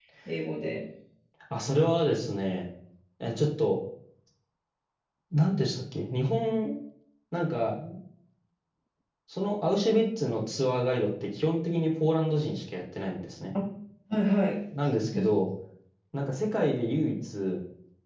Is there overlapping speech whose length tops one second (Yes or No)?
No